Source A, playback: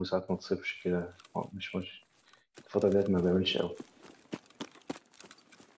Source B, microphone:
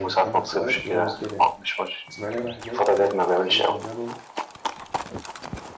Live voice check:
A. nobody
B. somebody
B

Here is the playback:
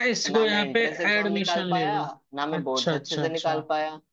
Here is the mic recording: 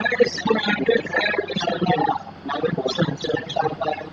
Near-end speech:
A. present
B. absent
B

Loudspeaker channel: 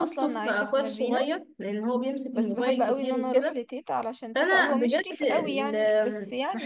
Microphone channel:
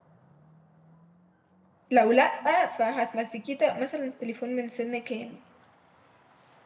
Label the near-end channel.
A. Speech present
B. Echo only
A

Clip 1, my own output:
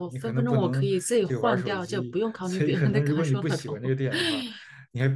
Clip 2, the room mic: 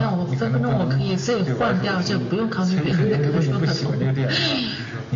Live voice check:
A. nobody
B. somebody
B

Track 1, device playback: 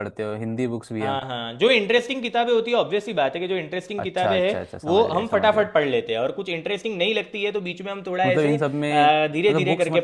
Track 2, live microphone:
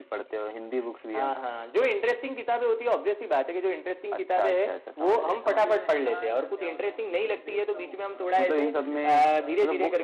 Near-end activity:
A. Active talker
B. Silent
A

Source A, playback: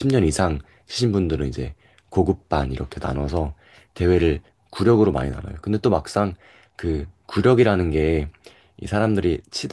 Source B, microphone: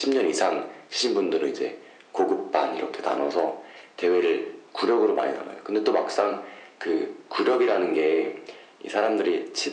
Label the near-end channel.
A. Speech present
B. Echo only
B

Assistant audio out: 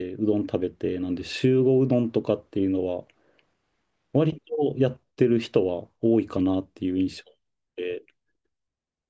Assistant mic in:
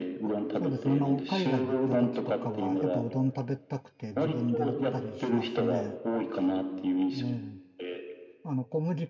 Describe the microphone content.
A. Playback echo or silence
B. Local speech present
B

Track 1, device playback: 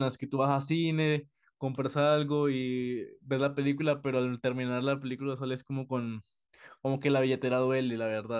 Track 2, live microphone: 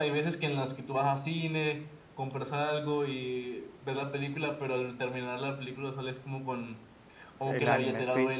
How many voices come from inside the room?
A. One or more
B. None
A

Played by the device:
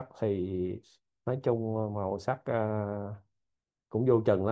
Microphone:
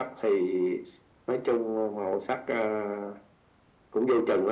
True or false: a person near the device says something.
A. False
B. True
A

